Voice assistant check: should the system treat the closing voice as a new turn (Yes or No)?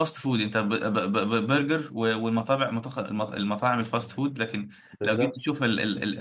No